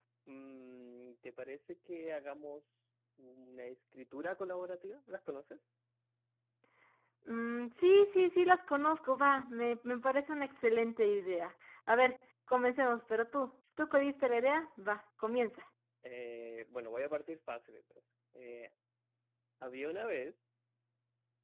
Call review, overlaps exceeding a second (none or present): none